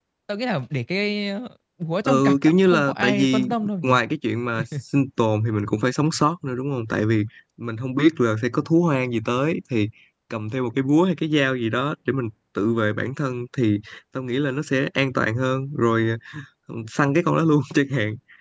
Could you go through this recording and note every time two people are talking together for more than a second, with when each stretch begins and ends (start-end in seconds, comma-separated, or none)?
2.0-4.0